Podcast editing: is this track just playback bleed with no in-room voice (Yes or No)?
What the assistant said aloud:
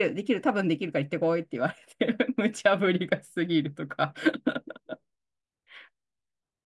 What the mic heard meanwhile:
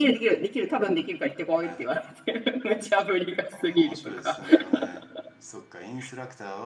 No